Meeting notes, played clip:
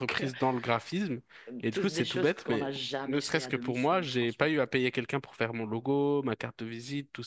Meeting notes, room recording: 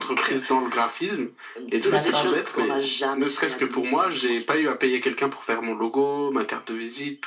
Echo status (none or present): present